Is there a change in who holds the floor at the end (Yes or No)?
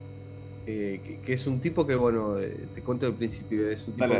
No